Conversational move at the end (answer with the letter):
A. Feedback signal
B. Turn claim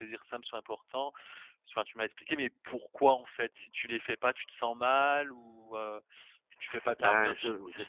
B